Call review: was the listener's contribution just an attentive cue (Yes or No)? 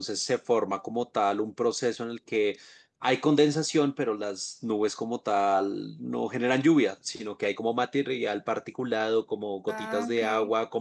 Yes